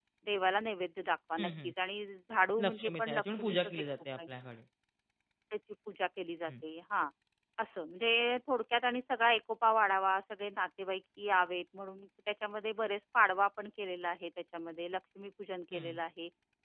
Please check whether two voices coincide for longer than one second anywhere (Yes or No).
Yes